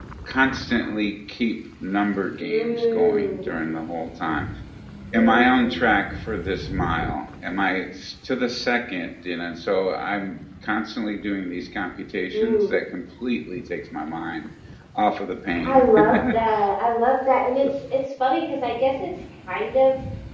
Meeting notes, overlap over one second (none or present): present